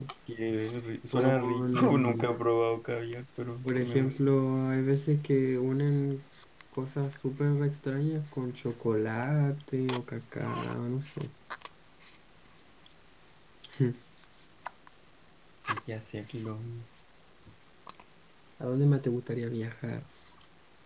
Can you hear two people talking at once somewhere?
Yes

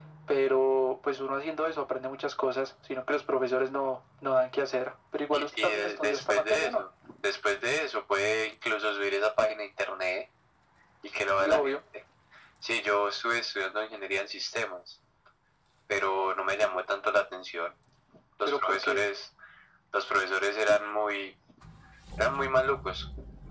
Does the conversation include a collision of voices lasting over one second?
Yes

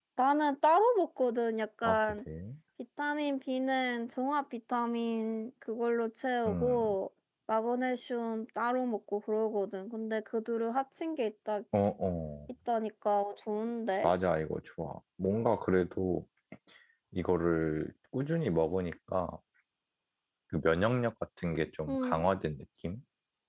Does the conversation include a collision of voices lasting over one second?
No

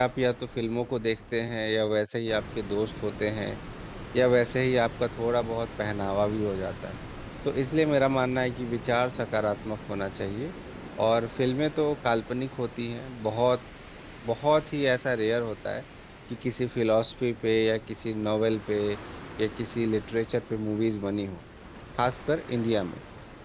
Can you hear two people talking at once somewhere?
No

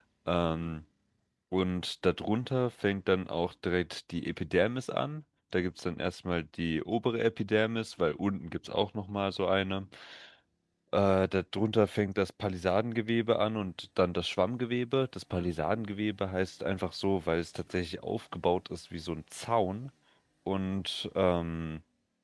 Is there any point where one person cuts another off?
No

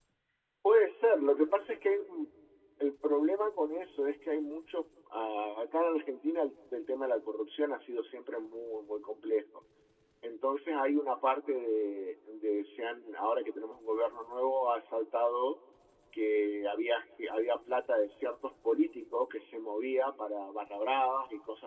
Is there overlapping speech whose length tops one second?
No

